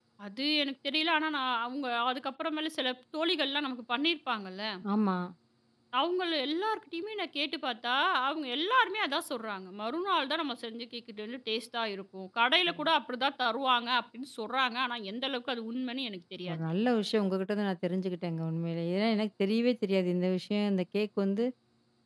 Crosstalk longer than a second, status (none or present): none